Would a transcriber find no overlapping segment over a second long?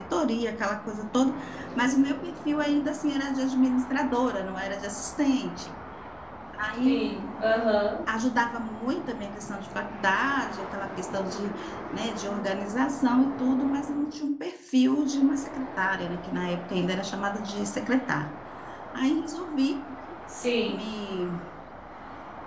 Yes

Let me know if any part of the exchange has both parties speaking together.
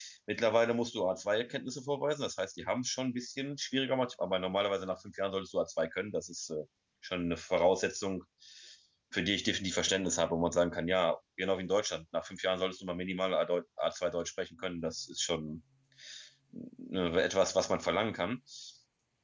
No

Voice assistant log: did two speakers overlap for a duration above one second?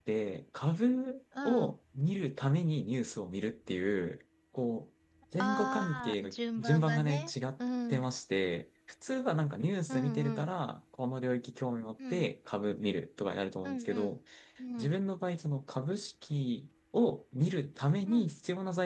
Yes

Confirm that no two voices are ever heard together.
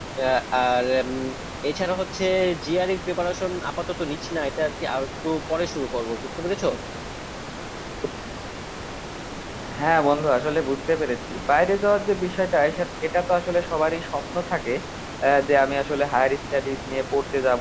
Yes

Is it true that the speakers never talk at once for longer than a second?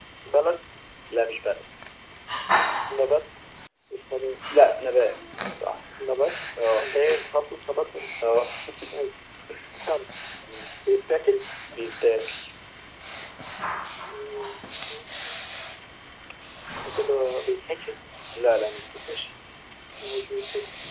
Yes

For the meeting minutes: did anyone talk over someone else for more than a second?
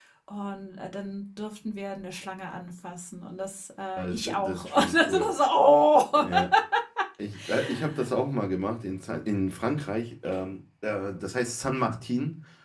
Yes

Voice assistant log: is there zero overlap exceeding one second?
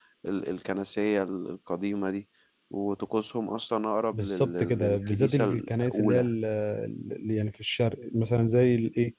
No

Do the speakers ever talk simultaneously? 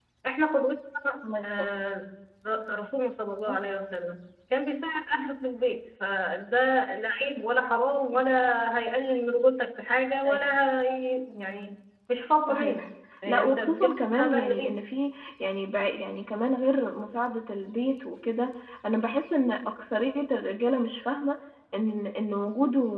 Yes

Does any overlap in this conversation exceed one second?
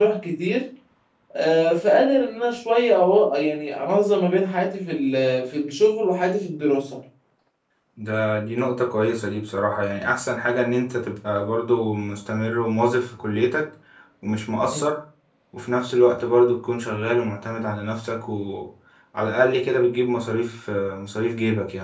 No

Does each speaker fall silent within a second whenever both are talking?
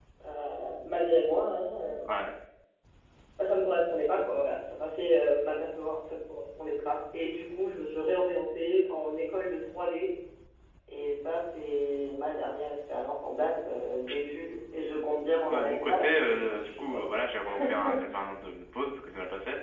No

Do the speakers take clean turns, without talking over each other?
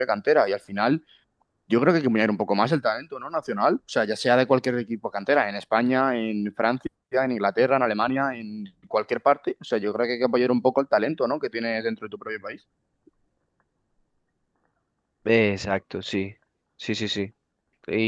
Yes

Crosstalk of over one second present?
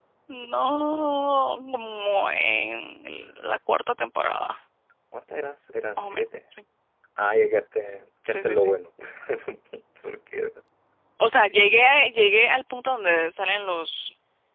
No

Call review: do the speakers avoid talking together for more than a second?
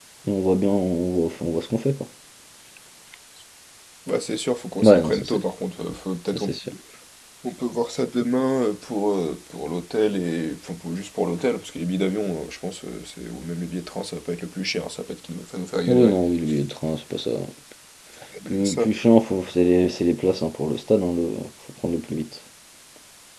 Yes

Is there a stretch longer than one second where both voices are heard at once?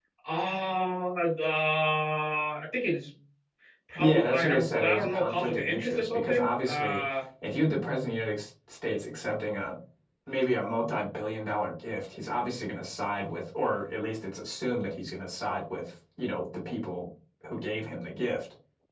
Yes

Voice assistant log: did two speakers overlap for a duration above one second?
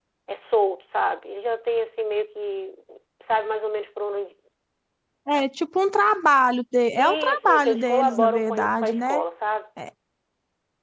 Yes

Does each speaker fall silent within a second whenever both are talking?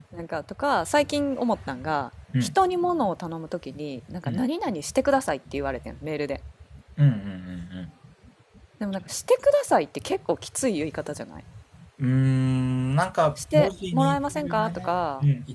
No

